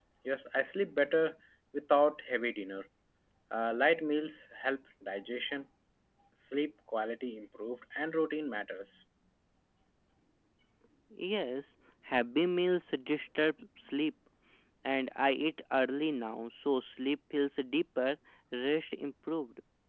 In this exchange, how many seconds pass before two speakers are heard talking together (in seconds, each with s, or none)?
none